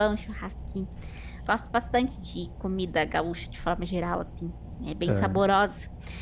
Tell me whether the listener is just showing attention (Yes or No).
Yes